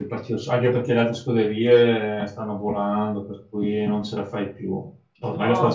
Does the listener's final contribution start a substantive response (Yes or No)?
No